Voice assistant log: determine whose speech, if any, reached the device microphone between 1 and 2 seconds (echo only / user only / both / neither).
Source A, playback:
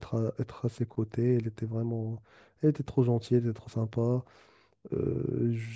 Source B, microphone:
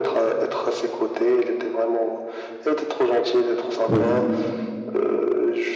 echo only